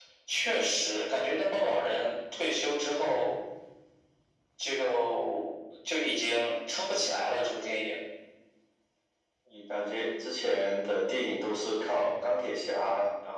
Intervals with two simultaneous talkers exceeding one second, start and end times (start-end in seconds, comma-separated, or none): none